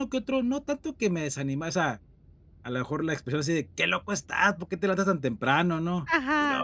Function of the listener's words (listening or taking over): listening